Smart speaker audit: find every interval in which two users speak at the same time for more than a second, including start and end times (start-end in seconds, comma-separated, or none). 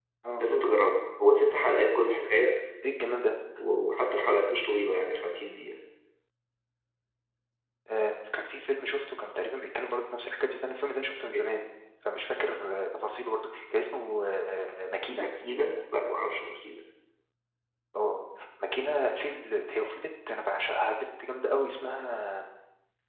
none